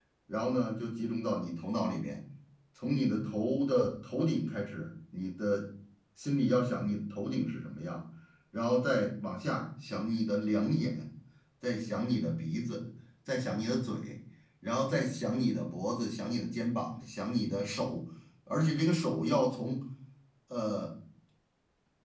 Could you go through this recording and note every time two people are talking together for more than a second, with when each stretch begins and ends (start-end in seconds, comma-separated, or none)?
none